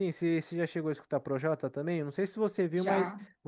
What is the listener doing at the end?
listening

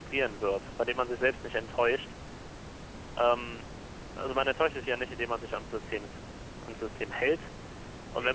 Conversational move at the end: listening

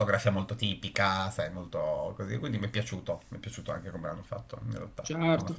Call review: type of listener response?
taking over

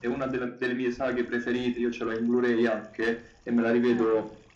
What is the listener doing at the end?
listening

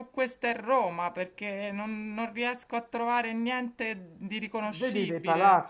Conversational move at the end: taking over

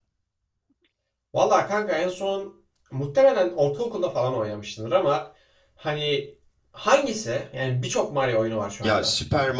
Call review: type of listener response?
taking over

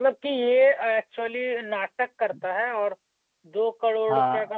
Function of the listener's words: listening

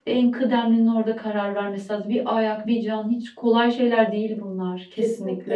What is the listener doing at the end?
taking over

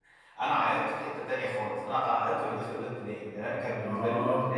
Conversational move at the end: listening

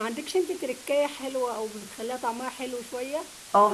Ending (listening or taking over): taking over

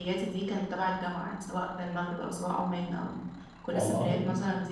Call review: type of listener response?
listening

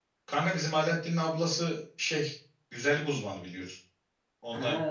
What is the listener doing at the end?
listening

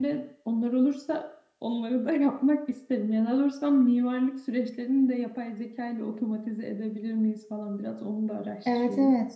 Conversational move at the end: taking over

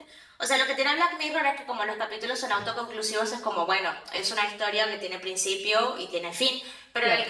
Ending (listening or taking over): listening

